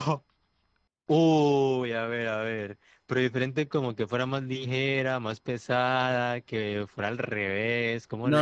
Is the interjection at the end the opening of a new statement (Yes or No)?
Yes